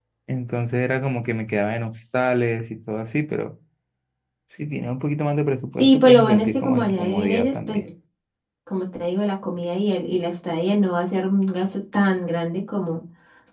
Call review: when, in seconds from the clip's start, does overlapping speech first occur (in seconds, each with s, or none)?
5.8 s